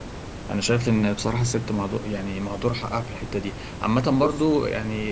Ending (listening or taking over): listening